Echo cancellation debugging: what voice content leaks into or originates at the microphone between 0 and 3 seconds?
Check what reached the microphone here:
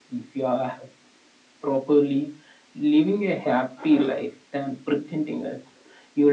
echo only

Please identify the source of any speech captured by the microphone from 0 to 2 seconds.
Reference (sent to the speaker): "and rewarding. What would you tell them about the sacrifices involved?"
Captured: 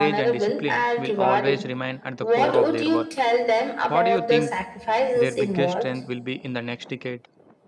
both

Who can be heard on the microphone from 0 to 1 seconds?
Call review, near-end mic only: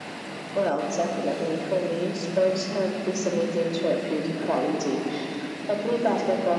echo only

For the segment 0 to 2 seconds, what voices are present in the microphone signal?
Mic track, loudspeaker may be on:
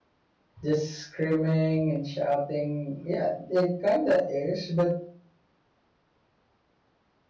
user only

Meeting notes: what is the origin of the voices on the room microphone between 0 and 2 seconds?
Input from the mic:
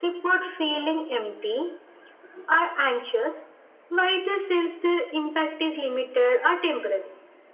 echo only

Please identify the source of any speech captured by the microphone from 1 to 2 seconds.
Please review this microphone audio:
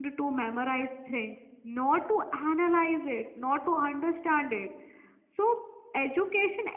user only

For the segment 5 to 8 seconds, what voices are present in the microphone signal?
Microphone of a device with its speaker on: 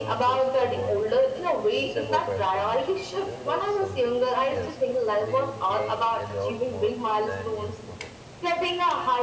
both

